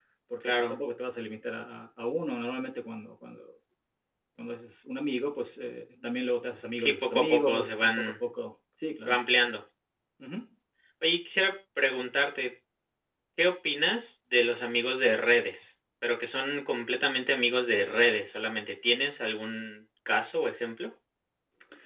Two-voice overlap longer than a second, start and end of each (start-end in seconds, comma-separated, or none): 6.8-8.1